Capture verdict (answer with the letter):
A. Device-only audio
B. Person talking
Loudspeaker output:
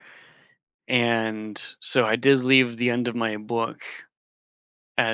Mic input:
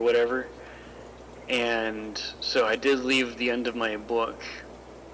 A